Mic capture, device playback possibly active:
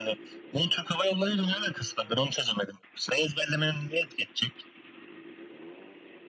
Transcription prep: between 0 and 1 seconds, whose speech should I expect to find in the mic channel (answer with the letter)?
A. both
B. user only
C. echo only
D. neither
C